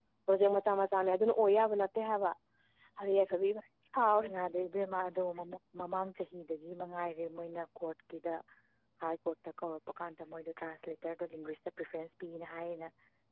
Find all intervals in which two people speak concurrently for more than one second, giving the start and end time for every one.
none

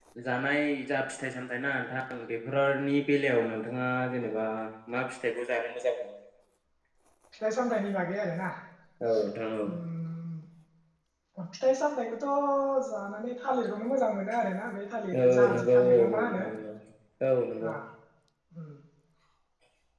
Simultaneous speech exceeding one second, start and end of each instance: 15.1-16.4

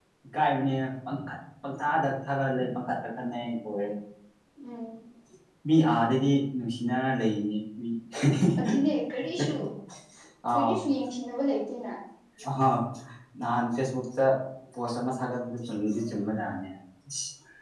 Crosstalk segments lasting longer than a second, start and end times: none

